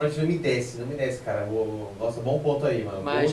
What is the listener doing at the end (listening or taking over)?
taking over